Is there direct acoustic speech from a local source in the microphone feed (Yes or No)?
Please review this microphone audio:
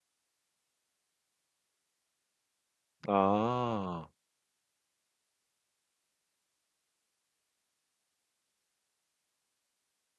Yes